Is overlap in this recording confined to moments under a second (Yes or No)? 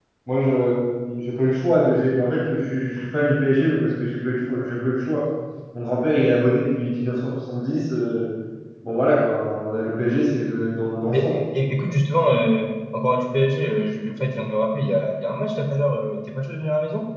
Yes